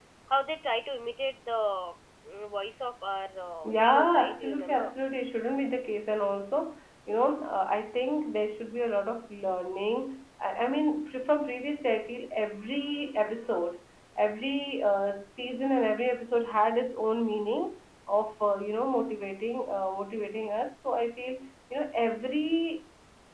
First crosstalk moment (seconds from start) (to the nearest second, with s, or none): 4 s